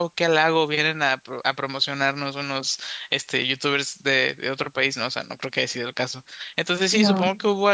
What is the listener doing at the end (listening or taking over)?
listening